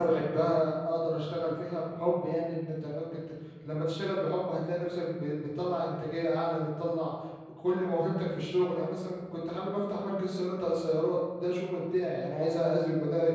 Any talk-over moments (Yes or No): No